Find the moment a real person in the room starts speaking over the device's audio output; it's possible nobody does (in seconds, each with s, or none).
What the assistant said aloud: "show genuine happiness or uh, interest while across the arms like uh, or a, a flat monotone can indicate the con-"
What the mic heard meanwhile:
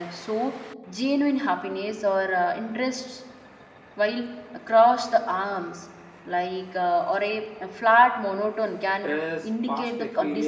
9.0 s